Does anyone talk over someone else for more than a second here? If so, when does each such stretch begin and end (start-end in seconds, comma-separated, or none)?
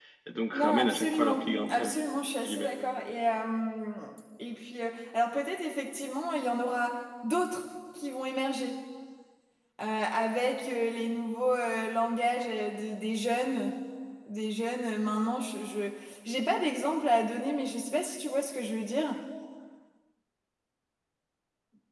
0.5-1.9